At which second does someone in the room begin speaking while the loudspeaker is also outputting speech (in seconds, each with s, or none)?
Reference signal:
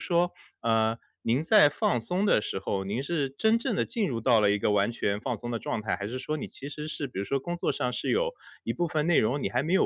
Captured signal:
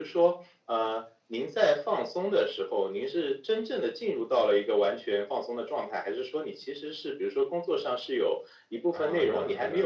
8.9 s